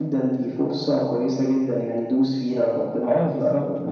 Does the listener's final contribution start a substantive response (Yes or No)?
Yes